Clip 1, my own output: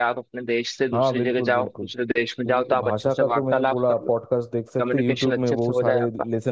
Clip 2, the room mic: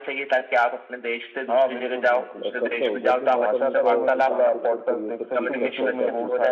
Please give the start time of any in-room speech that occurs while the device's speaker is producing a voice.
2.5 s

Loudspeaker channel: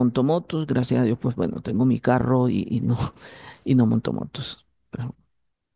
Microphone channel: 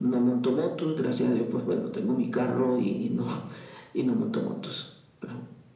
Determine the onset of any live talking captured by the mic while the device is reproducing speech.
none

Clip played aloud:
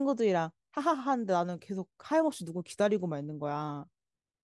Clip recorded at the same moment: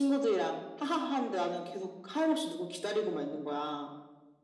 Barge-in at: none

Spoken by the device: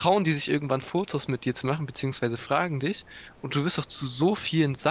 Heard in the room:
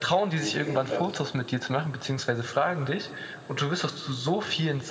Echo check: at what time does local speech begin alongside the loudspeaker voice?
0.4 s

